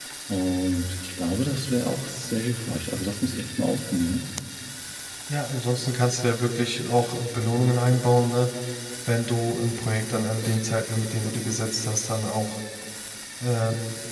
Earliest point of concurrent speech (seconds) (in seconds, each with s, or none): none